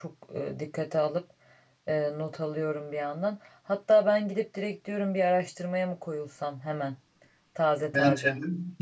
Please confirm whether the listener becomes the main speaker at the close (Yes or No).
Yes